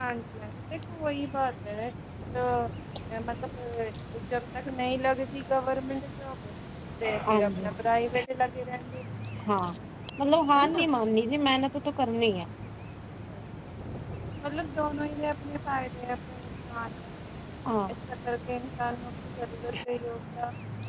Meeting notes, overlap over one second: none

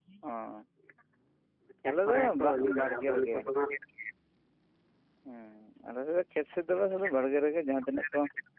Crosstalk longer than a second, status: present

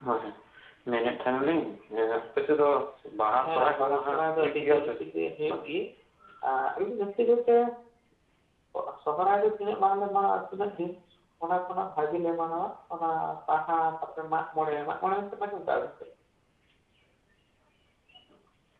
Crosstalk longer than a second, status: present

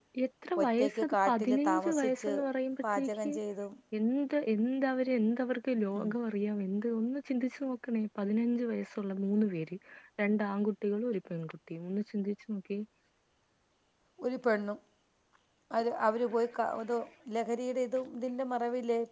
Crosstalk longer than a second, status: present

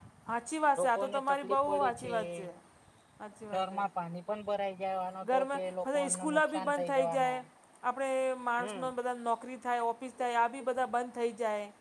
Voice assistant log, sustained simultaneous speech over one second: present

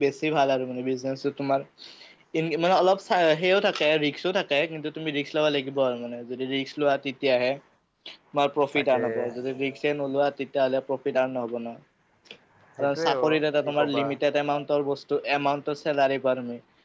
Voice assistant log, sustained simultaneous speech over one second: present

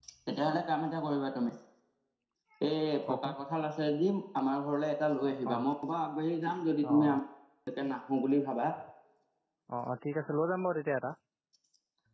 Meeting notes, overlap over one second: none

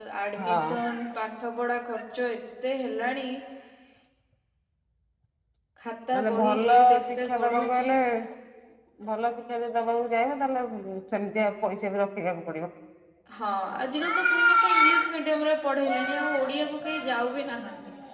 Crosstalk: present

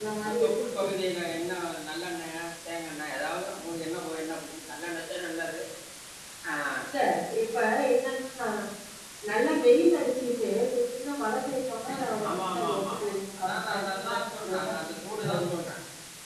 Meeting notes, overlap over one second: present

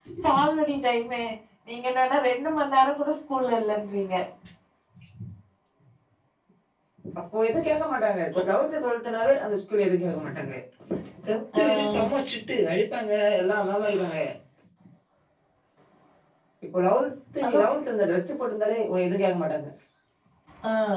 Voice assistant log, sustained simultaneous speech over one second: none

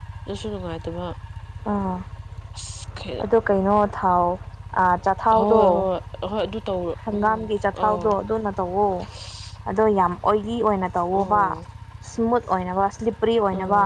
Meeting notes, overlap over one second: none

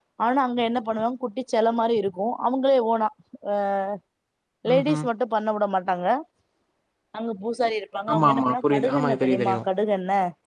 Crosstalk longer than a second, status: present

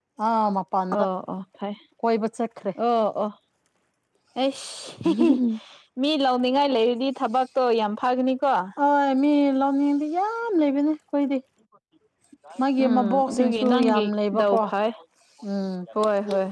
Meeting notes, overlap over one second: present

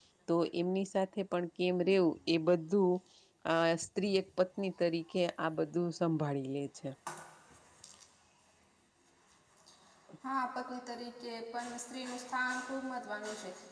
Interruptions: none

